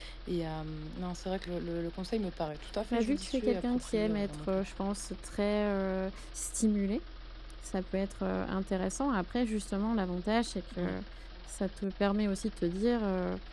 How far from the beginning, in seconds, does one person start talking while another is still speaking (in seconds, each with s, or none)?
2.9 s